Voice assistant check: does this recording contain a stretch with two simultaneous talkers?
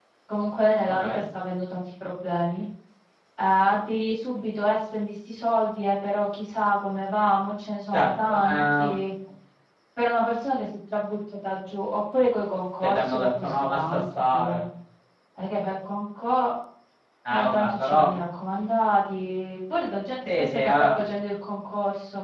Yes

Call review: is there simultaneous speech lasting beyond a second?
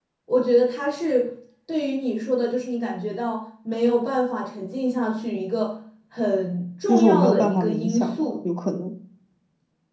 Yes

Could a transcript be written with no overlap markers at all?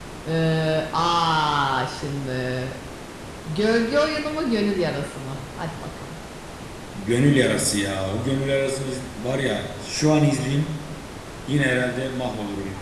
Yes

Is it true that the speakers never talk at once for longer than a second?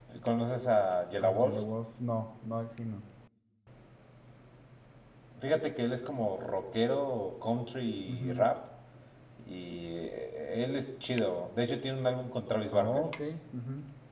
Yes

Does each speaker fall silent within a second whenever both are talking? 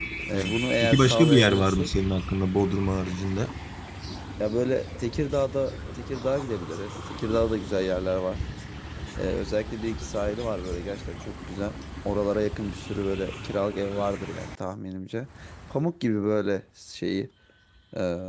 No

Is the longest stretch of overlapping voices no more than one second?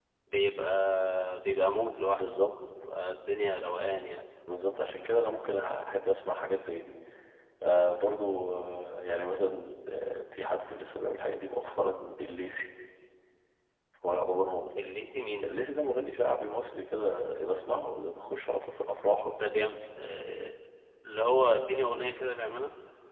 Yes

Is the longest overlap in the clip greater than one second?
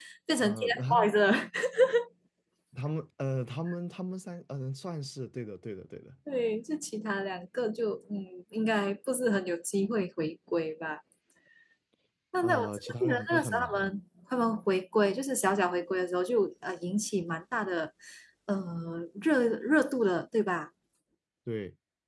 Yes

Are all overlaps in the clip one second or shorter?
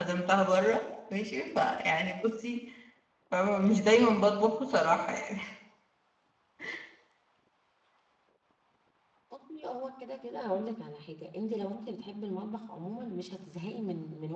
Yes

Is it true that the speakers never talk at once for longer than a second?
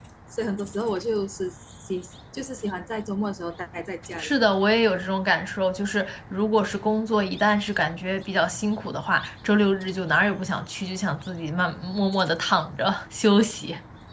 Yes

